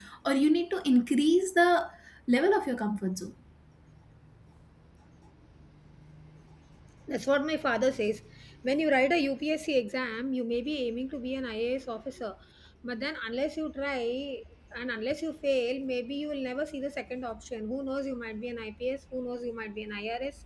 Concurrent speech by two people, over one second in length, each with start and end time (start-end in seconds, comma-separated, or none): none